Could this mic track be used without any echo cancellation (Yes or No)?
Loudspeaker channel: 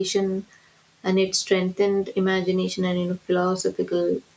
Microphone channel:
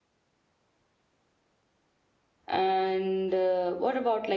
Yes